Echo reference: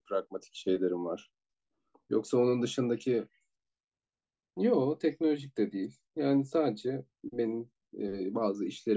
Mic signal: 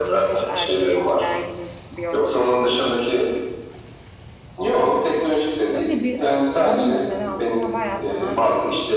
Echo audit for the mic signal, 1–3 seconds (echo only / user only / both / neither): both